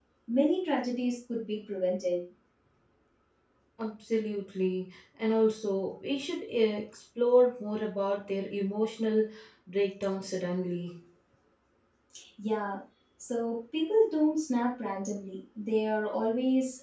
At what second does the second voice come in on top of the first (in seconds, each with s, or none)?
none